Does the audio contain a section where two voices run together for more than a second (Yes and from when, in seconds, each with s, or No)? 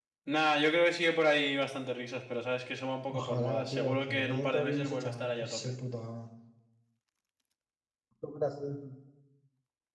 Yes, from 3.1 s